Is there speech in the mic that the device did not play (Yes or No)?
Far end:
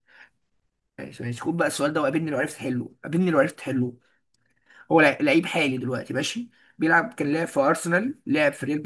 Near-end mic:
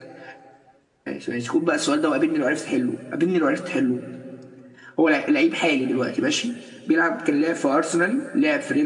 No